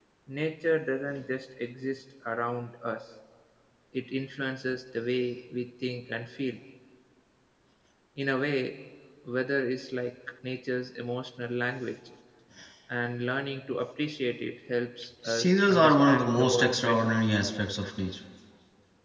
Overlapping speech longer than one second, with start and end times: 15.2-17.1

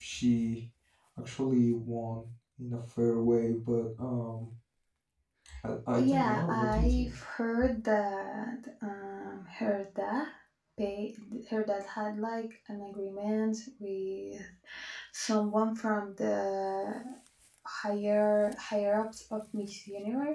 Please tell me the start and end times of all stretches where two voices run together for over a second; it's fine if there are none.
6.0-7.2

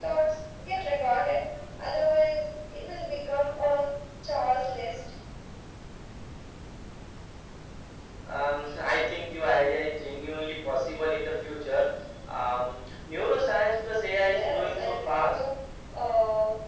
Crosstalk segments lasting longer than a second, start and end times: 14.2-15.4

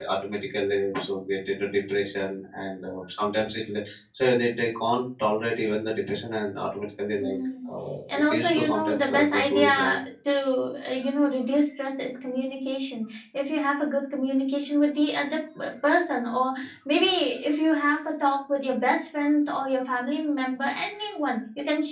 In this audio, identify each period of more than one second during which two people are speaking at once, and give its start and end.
8.2-10.0

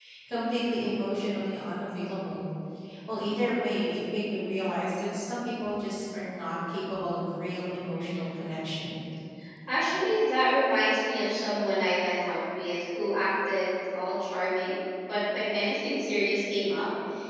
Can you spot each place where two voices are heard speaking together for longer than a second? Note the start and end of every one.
none

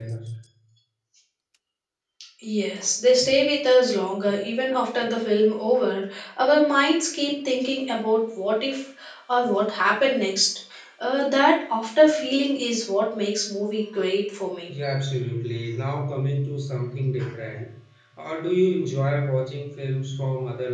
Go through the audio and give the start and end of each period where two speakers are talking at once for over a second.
none

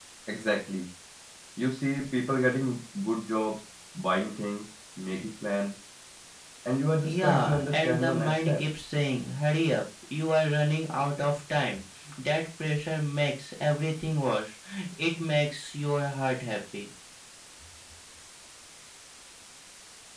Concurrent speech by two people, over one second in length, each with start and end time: 7.0-8.6

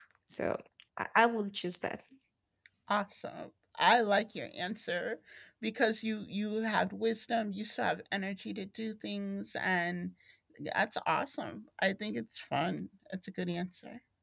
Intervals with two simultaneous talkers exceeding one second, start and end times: none

